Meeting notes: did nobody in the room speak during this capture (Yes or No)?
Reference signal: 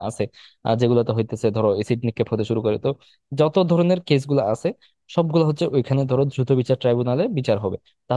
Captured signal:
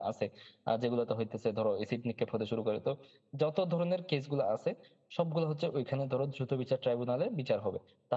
Yes